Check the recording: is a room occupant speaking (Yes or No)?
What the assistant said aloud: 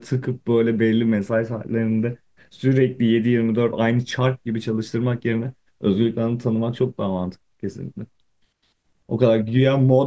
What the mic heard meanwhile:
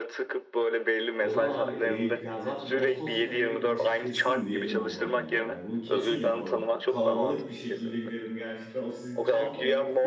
Yes